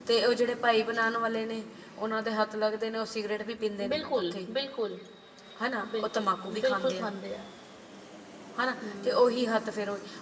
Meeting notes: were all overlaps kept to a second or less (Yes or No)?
No